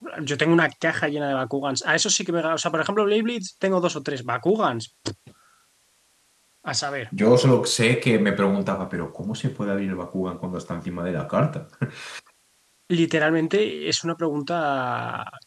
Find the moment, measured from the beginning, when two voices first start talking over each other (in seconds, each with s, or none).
none